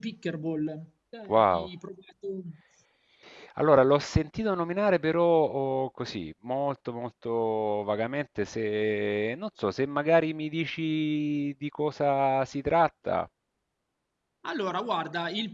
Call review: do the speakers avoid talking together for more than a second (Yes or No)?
Yes